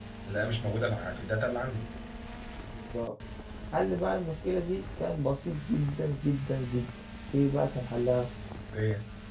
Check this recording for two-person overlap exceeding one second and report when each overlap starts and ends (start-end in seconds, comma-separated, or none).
none